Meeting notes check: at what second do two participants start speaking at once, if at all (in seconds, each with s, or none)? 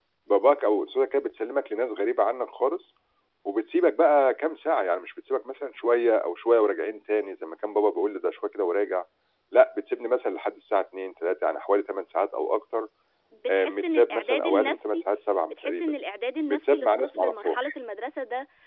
13.5 s